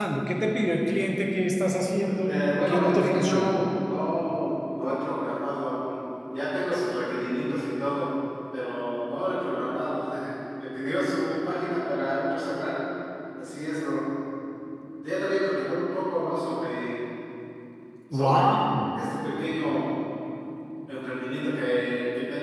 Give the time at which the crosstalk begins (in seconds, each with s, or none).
2.0 s